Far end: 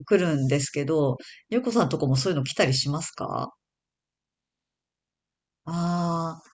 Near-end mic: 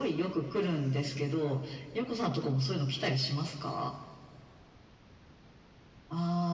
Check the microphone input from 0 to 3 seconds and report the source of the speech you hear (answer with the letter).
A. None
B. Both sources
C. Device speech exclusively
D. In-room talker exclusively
C